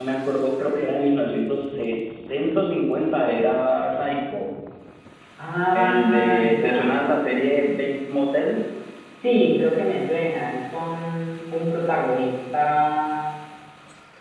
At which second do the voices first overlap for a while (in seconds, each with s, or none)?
5.7 s